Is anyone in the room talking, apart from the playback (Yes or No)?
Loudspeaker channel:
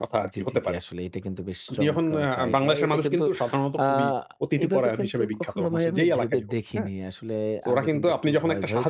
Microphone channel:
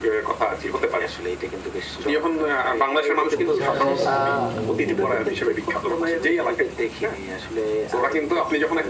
Yes